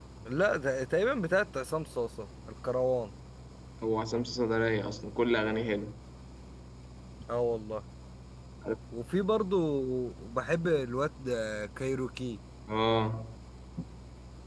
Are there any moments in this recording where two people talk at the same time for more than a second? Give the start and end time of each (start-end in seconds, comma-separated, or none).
none